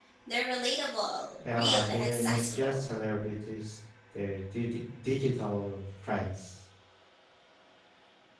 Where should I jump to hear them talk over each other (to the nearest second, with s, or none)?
1 s